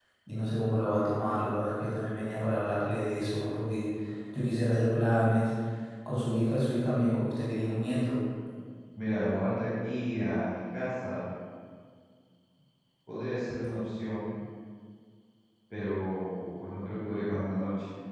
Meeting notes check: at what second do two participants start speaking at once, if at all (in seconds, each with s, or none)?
none